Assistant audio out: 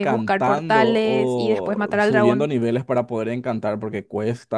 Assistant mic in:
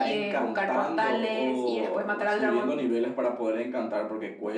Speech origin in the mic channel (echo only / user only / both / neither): echo only